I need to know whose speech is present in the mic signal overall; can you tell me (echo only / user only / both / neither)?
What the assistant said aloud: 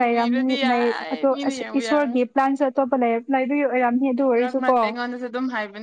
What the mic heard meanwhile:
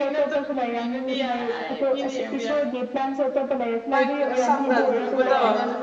both